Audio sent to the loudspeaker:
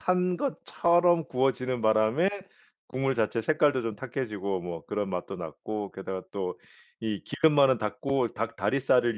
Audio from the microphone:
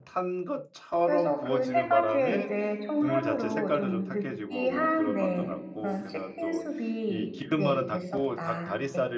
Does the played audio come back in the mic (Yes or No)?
Yes